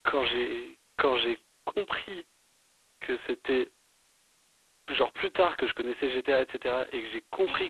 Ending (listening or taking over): listening